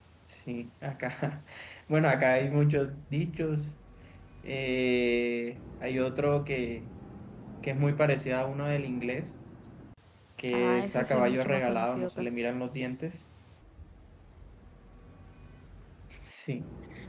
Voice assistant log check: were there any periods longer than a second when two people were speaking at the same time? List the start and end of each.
10.5-12.2

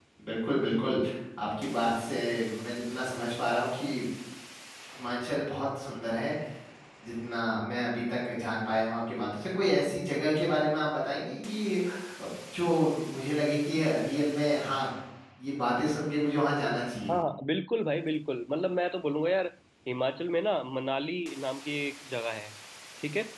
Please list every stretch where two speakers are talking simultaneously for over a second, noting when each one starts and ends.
none

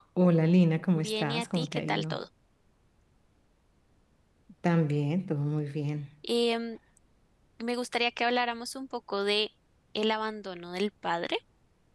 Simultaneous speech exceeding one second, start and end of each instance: 1.0-2.2

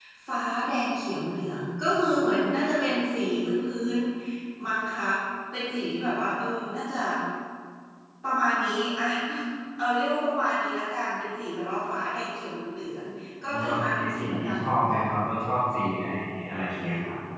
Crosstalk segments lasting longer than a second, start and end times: 13.5-15.0

